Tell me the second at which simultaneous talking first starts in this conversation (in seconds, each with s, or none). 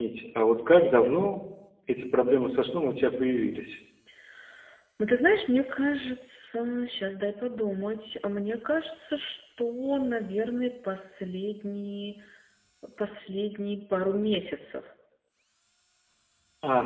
none